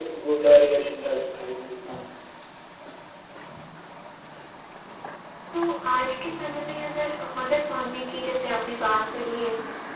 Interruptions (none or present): none